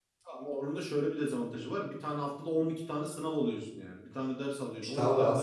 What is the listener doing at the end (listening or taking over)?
taking over